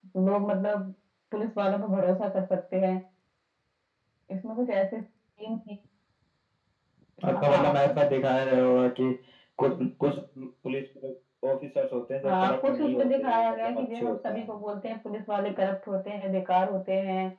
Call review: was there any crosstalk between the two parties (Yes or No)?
Yes